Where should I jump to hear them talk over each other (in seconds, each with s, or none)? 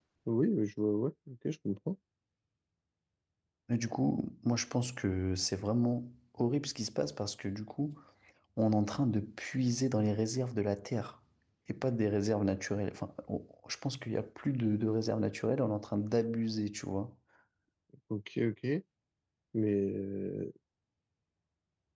none